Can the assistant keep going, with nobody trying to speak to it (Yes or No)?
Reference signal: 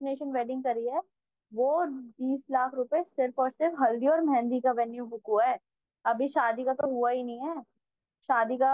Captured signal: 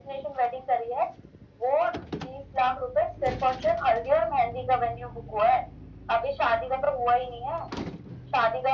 Yes